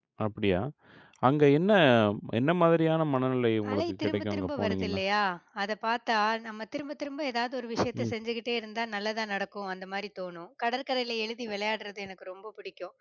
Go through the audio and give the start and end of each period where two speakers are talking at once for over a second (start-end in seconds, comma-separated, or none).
3.7-5.0